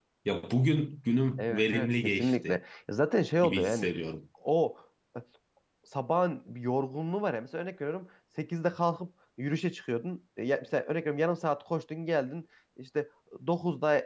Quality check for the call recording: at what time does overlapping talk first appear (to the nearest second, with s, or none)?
1 s